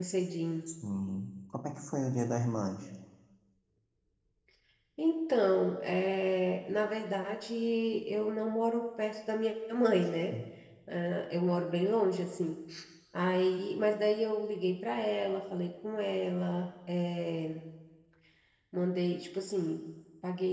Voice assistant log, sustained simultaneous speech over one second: none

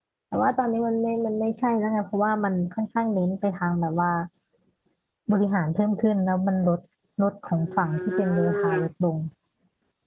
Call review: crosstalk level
present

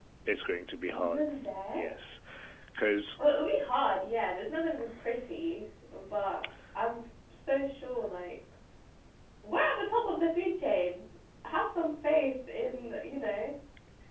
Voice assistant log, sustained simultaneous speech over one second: none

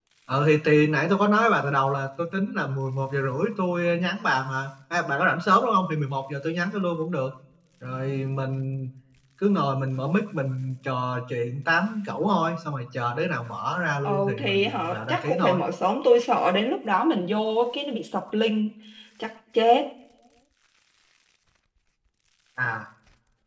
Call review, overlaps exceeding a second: present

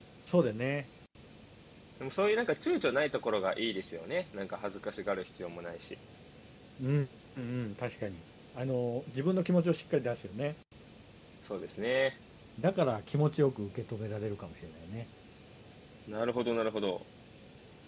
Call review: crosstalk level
none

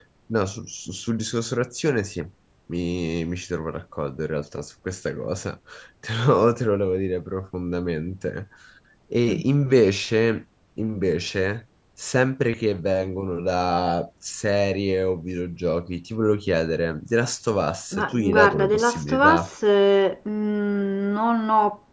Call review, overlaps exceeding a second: present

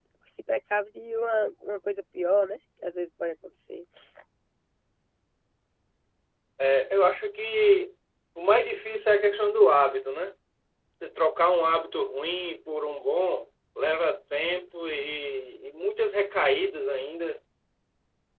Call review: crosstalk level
none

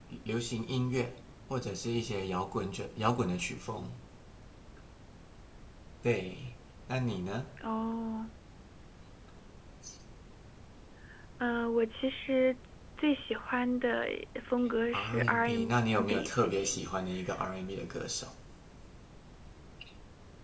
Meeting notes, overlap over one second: present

